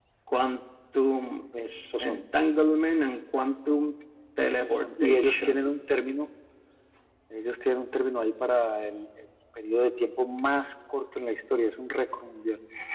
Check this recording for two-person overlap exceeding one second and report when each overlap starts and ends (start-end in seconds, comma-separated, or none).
4.4-5.7